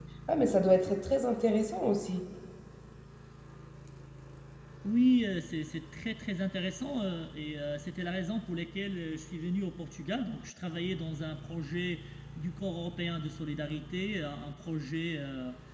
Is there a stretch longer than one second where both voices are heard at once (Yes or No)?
No